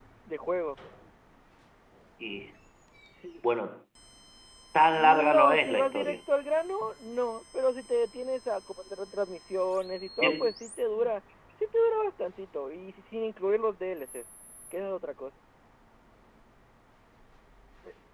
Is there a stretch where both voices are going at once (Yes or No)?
Yes